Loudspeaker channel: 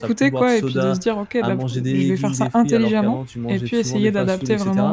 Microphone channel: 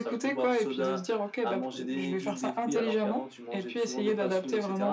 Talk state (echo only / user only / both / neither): echo only